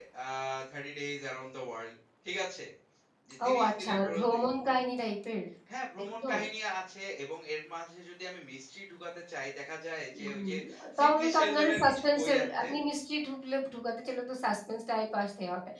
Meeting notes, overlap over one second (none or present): present